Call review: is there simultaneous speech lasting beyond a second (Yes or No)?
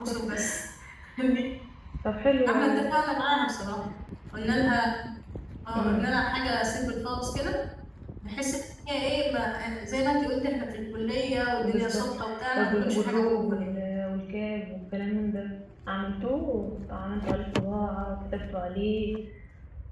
Yes